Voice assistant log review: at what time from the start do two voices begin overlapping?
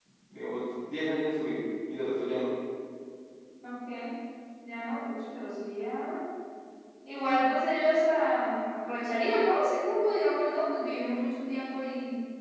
none

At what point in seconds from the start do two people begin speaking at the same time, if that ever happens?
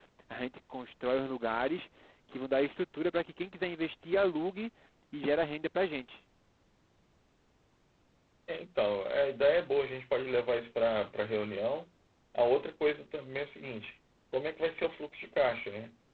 none

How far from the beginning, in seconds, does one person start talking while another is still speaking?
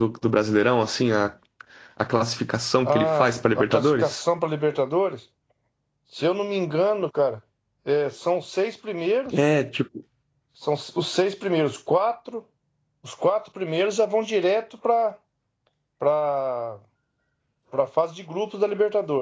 3 s

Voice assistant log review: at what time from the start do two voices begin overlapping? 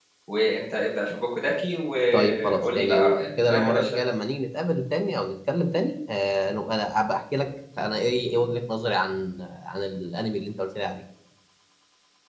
2 s

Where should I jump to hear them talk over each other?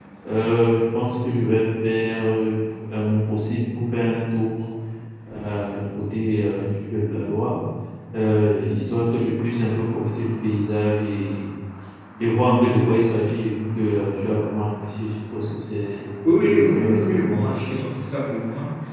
16 s

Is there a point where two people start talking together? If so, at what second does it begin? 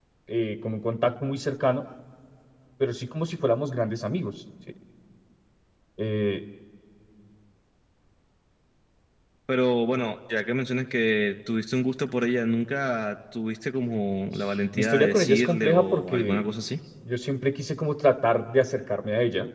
15 s

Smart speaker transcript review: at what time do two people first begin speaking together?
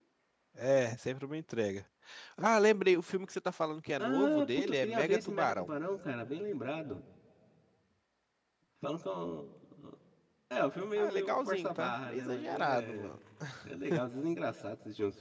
4 s

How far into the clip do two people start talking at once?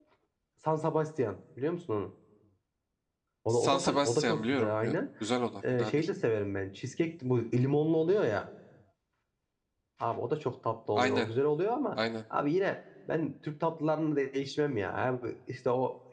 4 s

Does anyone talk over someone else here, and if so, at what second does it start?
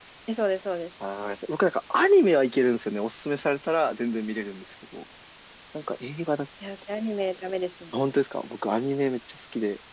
none

